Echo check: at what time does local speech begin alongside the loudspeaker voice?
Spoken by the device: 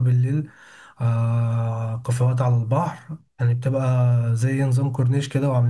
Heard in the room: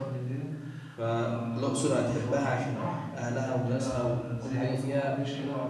1 s

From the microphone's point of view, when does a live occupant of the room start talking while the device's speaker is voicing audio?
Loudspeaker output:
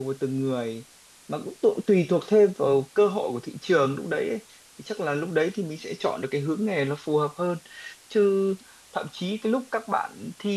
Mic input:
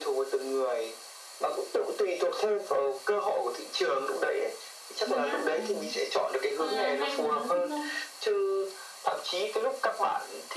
5 s

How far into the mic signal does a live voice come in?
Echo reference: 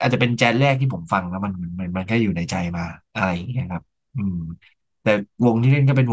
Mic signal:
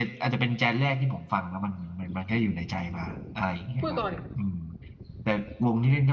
4 s

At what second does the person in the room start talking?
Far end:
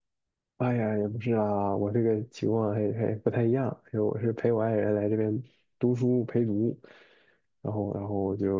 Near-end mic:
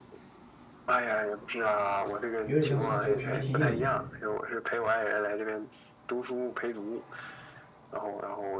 2 s

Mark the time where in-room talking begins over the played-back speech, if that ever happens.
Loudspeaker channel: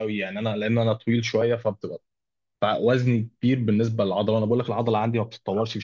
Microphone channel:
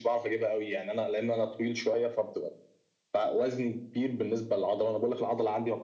none

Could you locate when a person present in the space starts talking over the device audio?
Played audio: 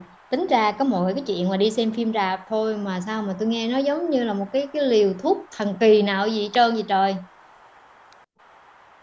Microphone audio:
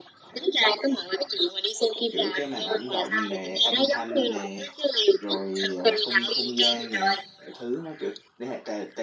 2 s

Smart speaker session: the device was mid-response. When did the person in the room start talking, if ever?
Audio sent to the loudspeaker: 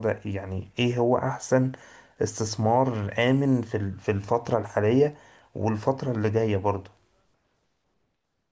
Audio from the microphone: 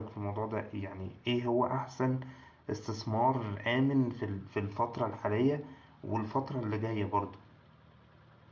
none

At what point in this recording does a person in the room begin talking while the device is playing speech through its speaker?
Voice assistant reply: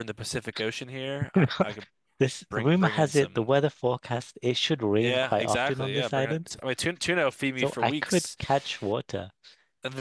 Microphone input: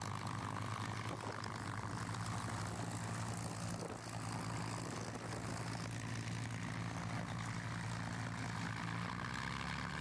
none

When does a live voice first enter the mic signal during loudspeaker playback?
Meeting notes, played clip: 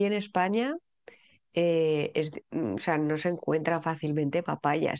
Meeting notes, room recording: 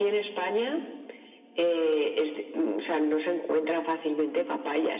none

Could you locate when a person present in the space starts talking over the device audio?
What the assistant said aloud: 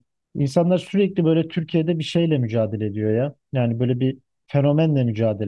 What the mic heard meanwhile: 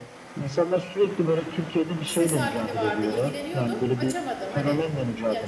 2 s

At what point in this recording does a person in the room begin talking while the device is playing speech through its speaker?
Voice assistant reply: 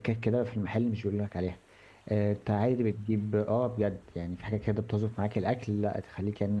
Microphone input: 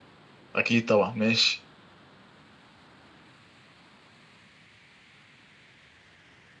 1 s

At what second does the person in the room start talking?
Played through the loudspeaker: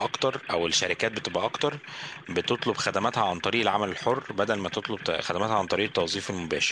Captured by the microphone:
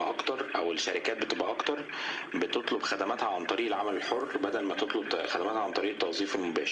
none

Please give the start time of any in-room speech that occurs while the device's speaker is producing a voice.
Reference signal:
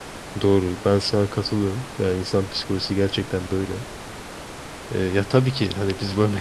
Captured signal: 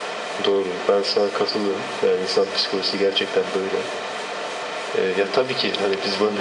none

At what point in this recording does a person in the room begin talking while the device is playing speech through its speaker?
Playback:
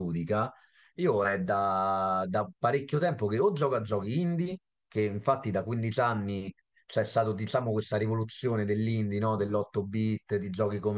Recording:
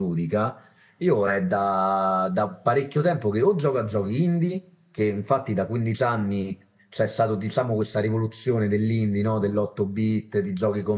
none

